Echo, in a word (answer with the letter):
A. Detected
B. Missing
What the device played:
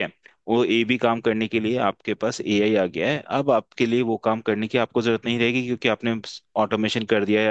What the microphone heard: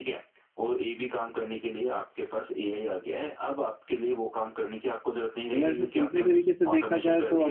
A